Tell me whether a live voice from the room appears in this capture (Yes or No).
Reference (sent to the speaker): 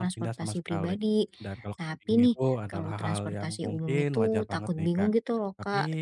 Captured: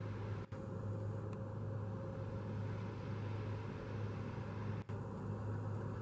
No